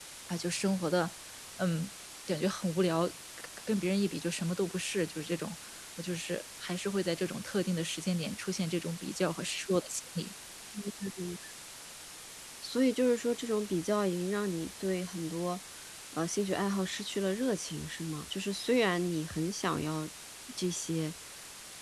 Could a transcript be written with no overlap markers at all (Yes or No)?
Yes